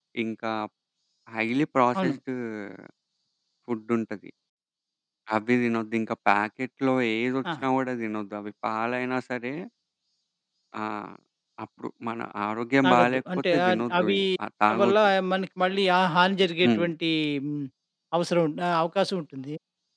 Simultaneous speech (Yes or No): Yes